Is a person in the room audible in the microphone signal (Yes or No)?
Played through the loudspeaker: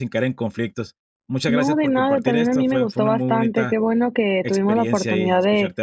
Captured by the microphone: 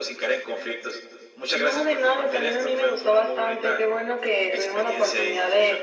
No